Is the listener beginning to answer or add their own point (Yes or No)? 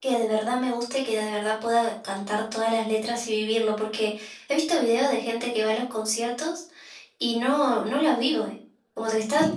No